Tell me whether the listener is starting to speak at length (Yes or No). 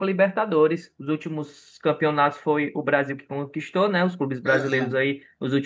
No